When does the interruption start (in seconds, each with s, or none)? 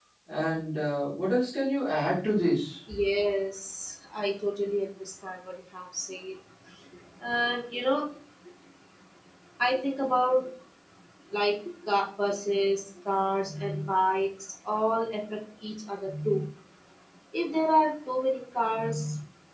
none